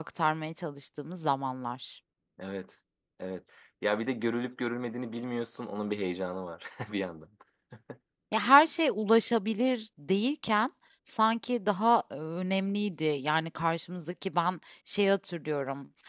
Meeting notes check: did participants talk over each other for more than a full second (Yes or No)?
No